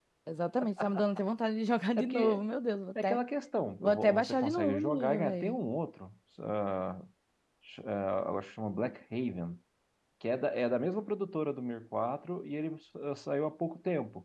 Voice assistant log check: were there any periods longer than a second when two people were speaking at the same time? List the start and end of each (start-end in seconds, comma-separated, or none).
3.8-5.6